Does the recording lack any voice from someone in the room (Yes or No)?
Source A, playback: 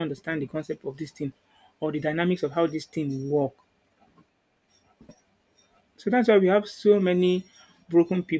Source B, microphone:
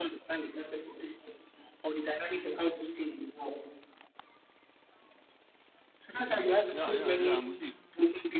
No